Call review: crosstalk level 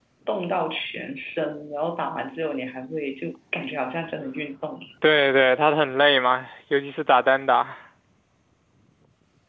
none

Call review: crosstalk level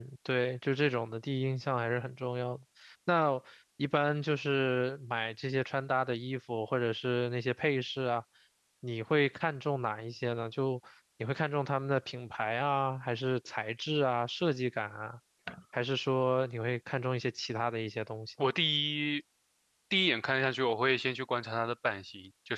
none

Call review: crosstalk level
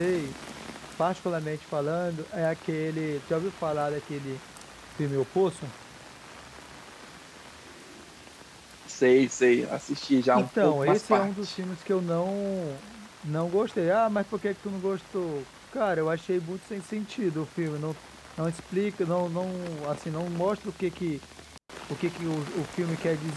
present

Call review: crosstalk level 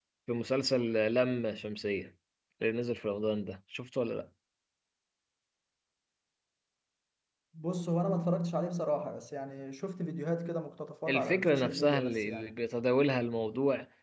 present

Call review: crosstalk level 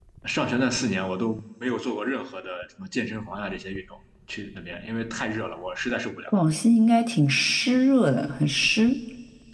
none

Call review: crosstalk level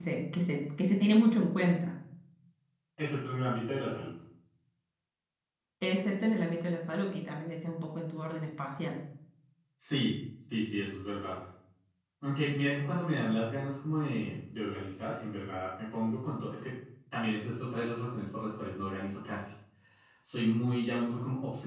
none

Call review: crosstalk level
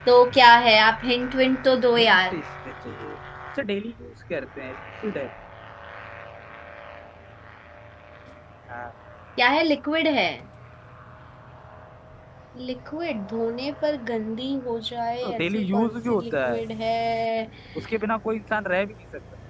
present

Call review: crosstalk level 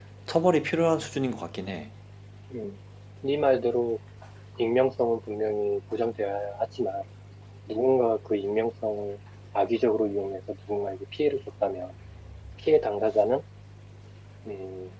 none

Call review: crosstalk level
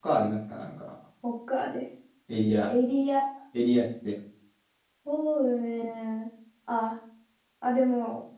none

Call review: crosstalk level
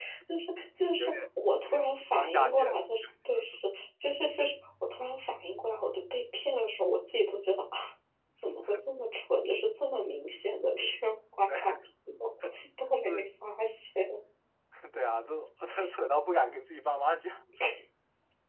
present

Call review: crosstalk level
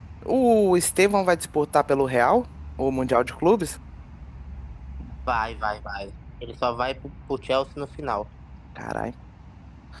none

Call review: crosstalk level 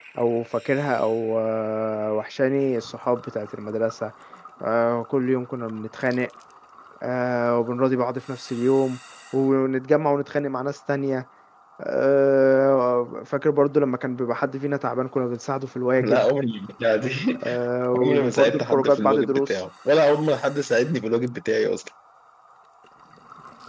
present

